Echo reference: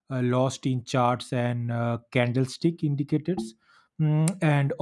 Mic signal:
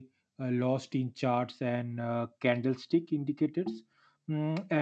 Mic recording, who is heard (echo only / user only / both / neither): echo only